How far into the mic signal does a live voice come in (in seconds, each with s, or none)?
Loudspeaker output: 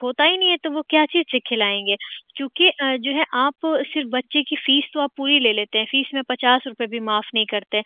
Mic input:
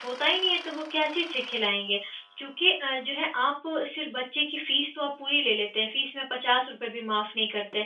none